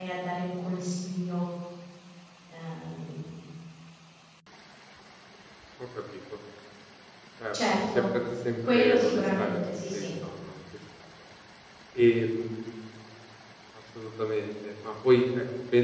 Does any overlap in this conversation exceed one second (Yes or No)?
Yes